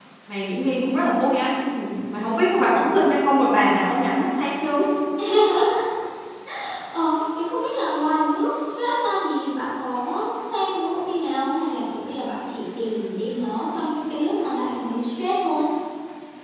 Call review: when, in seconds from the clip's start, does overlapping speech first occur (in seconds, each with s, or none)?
none